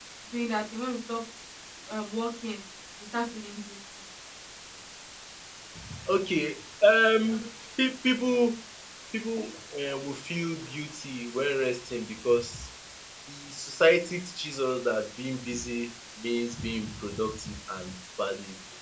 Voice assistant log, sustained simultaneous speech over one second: none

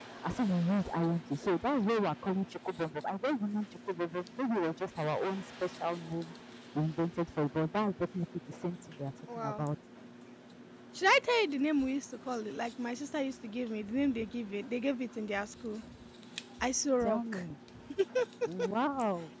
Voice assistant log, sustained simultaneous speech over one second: none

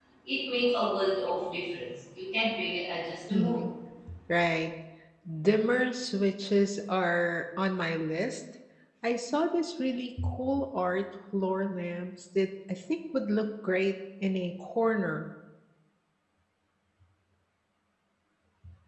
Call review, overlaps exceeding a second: none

